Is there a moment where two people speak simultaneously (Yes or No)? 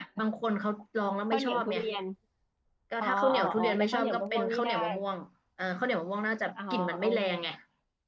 Yes